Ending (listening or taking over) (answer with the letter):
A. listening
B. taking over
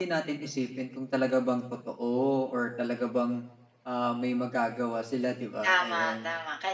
B